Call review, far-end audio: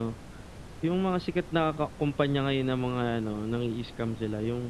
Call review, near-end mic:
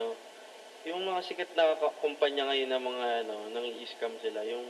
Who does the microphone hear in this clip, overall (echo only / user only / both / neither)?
echo only